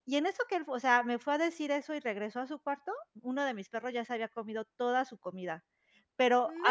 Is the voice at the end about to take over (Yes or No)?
No